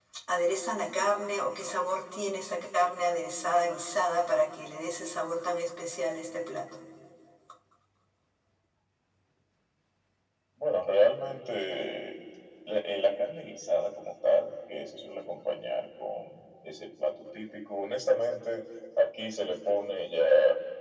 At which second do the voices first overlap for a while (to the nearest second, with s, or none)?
none